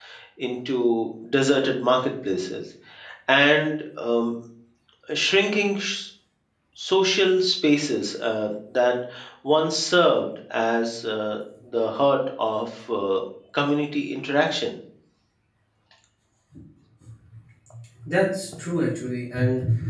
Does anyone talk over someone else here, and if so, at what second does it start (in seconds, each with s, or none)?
none